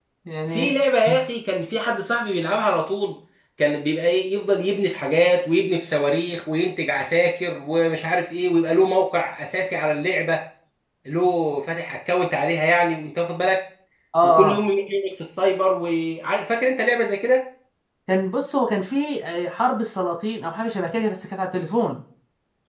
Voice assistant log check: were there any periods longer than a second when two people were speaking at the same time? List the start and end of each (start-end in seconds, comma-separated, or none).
none